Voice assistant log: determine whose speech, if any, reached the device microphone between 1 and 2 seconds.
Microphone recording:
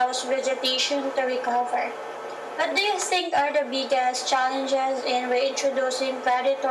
echo only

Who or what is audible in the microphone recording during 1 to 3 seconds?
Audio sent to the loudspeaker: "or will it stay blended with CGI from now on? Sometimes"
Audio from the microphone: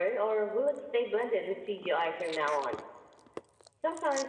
echo only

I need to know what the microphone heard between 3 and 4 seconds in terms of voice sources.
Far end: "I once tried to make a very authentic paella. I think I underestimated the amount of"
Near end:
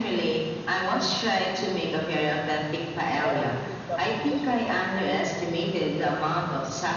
both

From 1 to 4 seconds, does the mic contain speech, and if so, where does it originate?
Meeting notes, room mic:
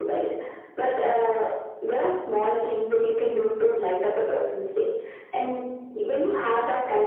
echo only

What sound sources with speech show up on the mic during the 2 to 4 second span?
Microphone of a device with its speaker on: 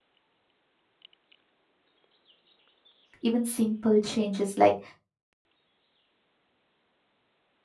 user only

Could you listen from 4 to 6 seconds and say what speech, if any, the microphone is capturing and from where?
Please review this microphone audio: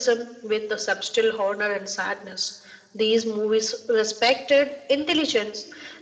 echo only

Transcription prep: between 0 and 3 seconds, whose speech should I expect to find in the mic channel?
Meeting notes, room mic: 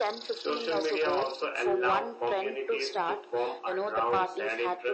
echo only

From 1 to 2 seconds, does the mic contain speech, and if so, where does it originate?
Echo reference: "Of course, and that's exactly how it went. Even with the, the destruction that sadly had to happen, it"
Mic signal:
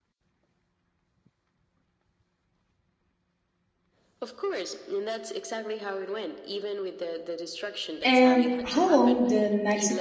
neither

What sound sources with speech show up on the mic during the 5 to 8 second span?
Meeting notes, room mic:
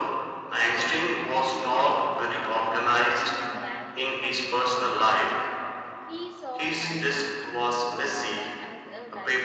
both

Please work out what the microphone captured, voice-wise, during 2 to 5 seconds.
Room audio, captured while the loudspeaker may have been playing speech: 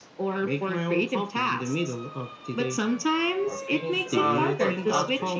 both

